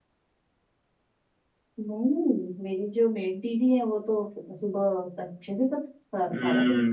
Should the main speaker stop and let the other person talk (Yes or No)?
Yes